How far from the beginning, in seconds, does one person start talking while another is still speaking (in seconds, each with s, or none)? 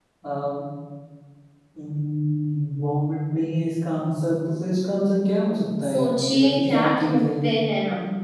5.8 s